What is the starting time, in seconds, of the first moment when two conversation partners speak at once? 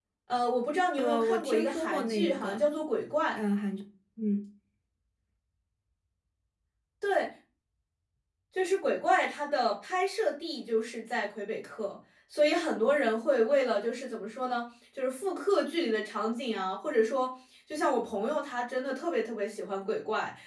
0.9 s

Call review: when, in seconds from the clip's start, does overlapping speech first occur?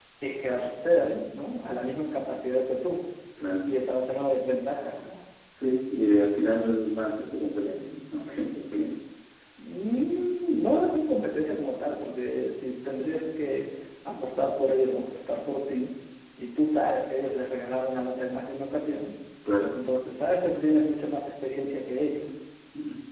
none

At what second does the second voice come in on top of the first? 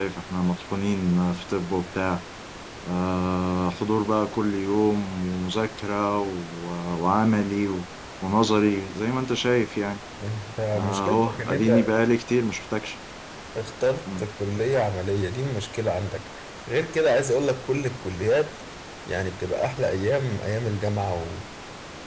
10.7 s

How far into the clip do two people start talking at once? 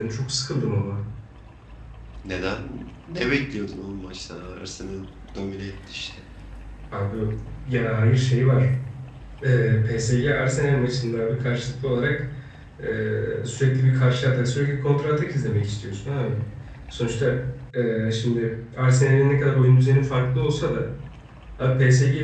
none

